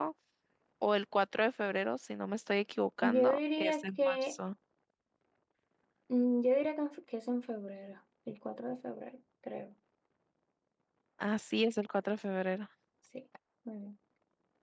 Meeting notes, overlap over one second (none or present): present